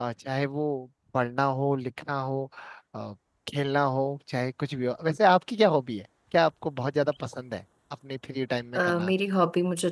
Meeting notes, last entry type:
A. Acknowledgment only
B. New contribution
B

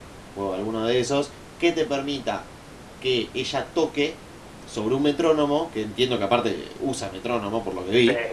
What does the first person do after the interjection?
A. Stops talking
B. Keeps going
B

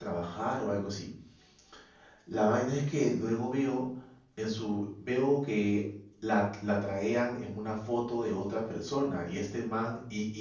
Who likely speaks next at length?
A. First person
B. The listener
A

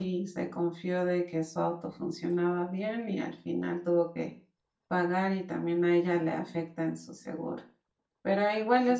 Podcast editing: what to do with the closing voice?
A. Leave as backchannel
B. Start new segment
A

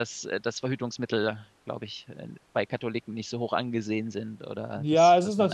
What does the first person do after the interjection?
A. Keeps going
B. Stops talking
B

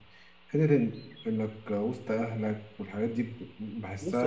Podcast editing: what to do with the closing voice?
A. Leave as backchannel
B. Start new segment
B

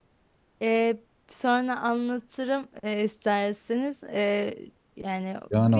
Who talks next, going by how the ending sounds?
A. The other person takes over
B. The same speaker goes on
A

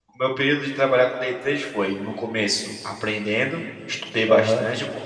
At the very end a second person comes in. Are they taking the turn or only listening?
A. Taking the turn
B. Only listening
B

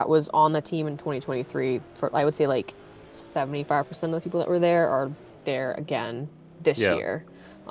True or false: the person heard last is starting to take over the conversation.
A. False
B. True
A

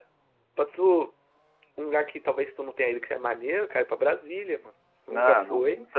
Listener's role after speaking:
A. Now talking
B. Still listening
A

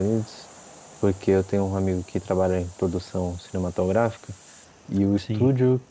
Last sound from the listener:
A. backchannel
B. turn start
A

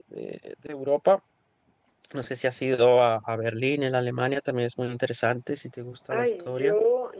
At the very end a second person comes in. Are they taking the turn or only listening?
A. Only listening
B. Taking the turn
B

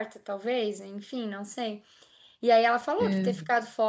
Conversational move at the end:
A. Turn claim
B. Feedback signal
B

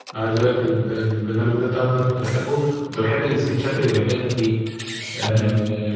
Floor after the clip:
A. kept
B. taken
B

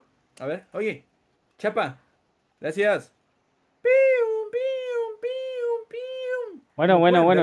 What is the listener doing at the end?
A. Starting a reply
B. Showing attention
A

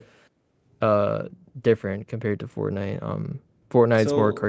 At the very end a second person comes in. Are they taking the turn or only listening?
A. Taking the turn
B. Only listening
B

